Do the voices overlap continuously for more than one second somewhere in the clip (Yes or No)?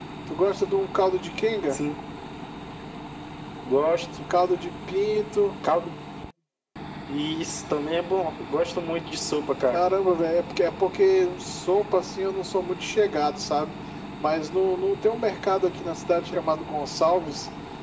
No